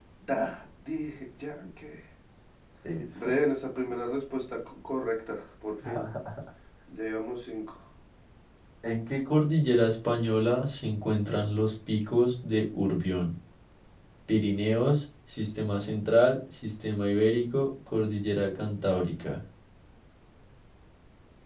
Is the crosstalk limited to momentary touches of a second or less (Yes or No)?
Yes